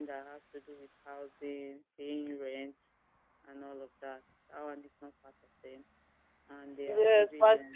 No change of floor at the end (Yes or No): No